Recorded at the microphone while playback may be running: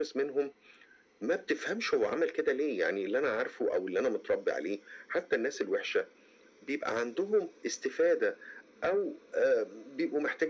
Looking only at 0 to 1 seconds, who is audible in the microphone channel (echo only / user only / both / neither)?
echo only